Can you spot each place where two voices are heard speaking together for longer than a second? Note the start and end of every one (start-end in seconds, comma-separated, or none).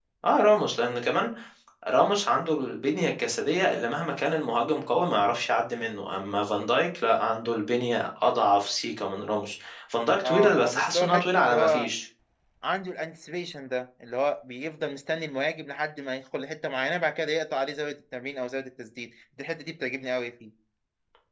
10.2-11.9